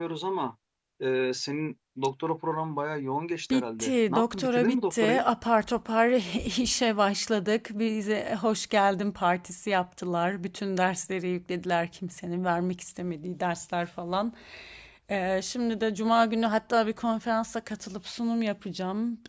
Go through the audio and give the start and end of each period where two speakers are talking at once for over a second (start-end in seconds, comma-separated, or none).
3.5-5.2